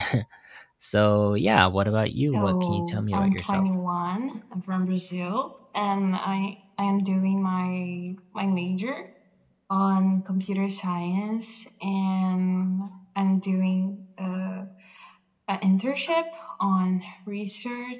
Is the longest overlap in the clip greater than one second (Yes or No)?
Yes